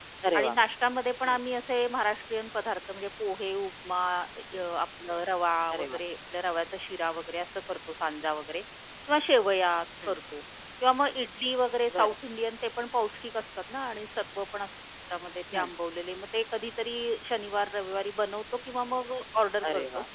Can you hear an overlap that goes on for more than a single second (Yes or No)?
No